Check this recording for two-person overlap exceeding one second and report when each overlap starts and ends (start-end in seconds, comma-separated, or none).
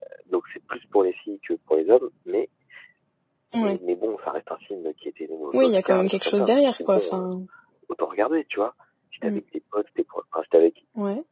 5.5-7.2